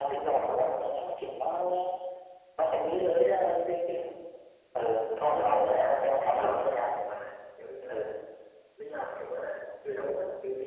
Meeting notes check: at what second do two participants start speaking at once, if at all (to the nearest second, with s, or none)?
5 s